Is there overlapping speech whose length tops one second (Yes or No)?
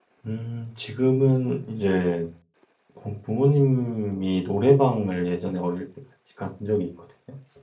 No